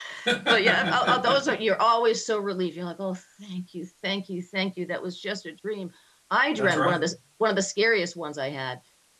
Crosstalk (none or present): present